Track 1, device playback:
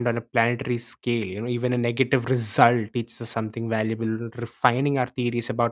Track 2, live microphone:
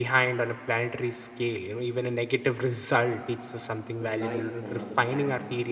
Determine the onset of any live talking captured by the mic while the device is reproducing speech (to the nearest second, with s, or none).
4 s